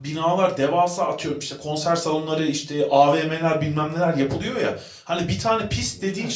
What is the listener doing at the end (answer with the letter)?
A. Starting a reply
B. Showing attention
B